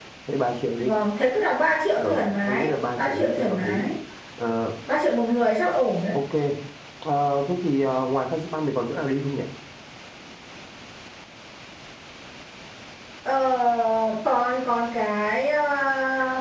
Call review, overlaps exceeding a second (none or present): present